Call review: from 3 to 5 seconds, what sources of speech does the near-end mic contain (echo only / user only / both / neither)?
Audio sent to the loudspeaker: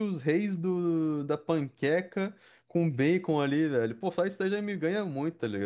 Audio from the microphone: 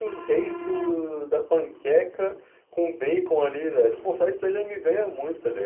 echo only